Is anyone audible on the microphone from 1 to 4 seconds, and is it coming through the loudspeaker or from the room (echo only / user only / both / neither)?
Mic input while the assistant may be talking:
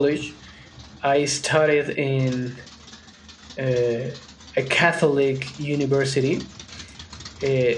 echo only